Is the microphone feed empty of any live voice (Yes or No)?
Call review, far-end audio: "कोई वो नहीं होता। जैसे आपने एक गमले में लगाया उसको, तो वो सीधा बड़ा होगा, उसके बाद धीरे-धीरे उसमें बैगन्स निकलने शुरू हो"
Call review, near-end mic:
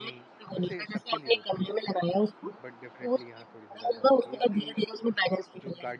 No